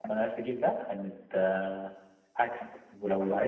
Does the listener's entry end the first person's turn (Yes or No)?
No